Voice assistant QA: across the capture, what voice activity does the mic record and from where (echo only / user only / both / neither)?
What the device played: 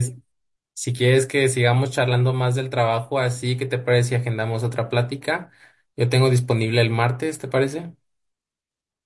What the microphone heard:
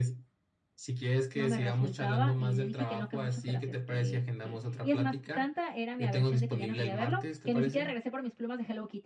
both